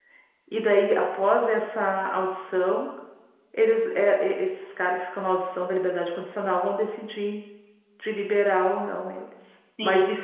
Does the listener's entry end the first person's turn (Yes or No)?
No